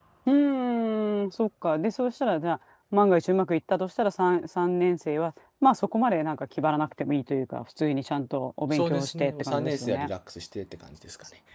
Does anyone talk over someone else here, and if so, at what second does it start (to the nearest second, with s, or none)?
9 s